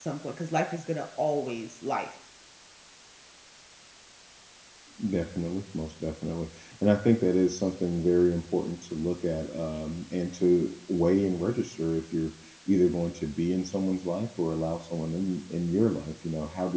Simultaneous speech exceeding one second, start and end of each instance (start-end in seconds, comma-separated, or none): none